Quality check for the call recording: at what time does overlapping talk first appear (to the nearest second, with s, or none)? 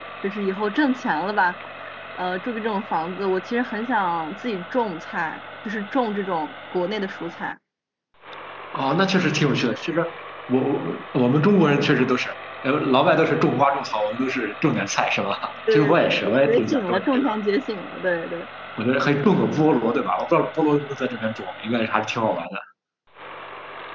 16 s